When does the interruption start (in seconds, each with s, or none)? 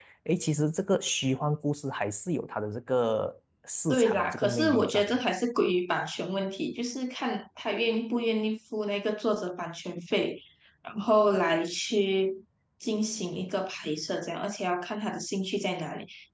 3.9 s